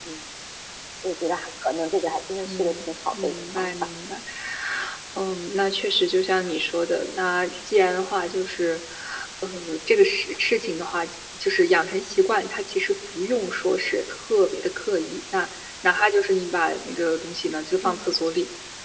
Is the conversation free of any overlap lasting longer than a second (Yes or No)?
No